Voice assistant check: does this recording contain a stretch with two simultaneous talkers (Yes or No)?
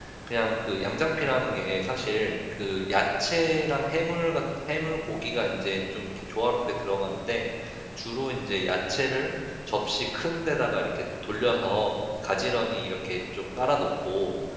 No